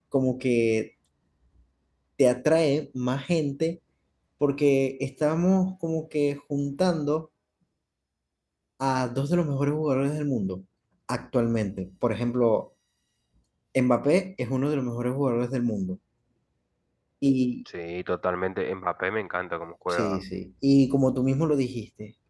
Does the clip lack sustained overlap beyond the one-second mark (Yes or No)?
Yes